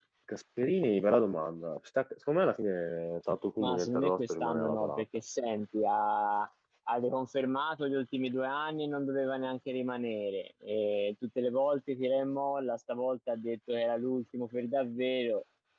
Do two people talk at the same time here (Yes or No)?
Yes